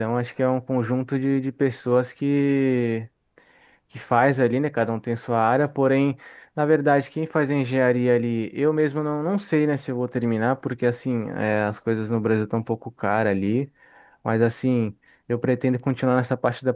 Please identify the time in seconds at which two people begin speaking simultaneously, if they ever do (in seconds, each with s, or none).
none